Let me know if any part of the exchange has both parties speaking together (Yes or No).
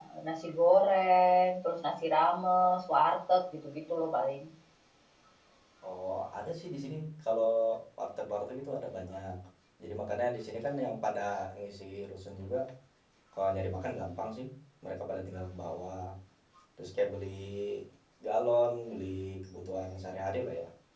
No